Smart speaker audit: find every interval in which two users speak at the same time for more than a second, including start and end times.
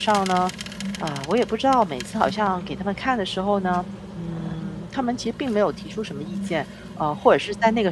none

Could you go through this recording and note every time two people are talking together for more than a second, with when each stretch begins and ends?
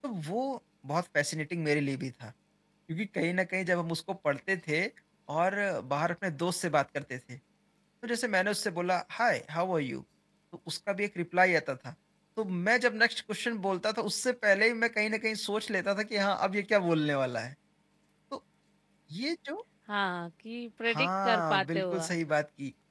20.9-22.2

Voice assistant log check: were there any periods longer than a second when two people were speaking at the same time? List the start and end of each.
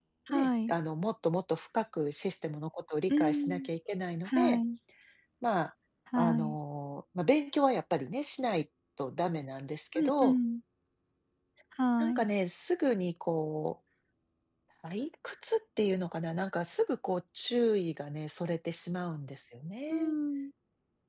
none

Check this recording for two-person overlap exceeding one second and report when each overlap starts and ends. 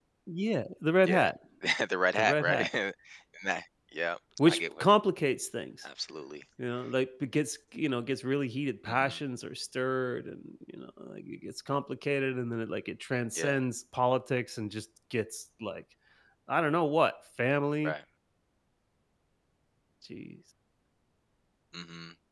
none

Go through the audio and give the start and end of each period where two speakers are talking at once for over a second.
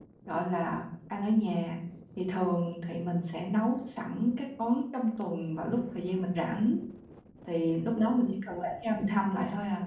none

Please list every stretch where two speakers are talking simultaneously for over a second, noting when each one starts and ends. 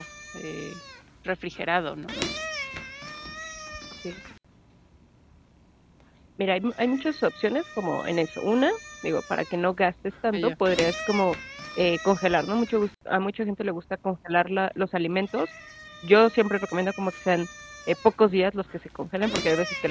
none

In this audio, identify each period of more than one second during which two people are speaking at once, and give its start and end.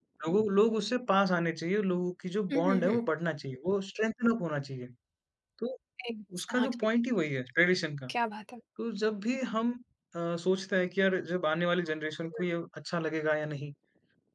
none

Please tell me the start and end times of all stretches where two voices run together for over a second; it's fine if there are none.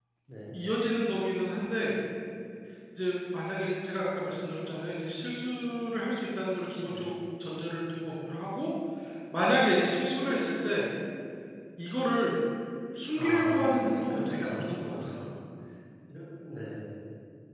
13.1-15.2

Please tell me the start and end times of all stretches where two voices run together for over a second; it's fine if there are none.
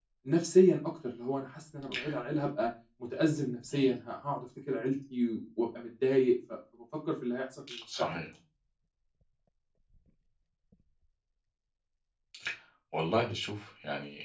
none

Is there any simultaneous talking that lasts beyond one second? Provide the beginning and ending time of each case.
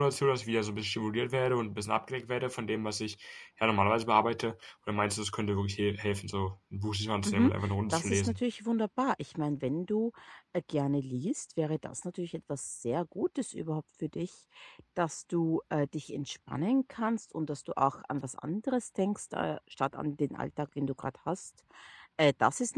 none

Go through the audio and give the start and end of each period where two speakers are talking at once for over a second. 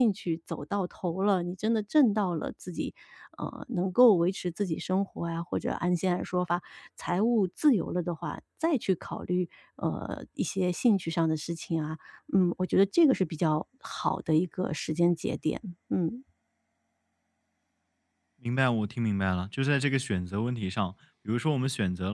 none

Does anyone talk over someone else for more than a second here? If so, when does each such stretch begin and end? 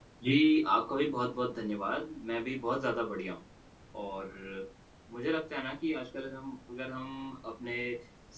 none

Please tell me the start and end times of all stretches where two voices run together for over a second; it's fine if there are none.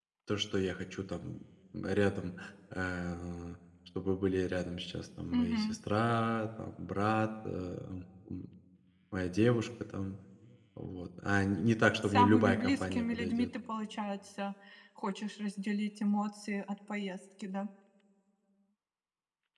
12.0-13.5

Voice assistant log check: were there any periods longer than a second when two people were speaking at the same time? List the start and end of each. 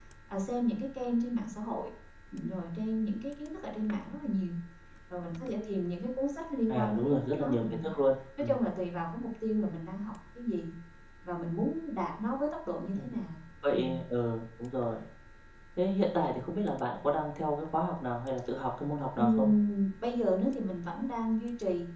6.7-8.0

